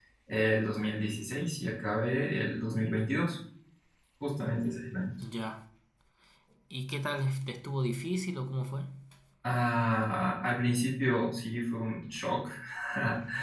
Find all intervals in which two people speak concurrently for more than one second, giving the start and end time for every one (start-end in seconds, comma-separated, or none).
none